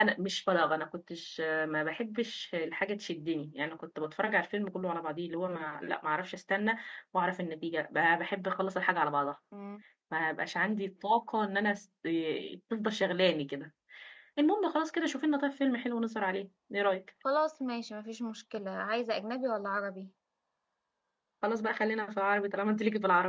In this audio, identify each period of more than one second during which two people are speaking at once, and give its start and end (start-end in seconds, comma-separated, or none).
none